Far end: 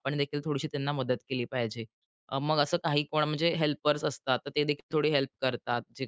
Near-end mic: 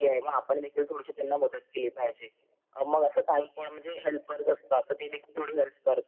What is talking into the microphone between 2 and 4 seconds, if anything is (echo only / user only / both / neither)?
echo only